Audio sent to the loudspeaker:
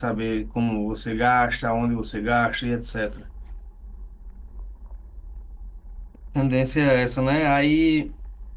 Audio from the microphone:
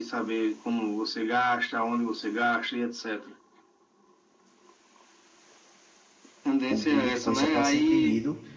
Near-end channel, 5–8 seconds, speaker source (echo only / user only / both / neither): both